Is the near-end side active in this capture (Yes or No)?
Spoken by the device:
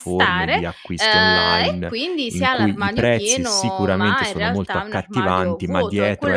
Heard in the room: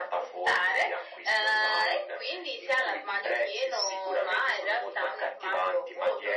No